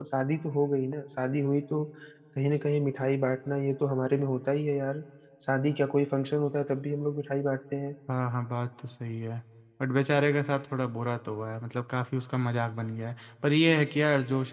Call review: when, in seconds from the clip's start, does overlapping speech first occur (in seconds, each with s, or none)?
none